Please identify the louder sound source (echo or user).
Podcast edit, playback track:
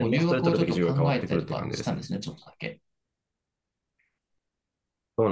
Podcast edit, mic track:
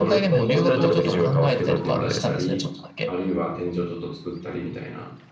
echo